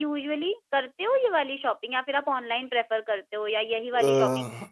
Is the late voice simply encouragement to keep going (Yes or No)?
No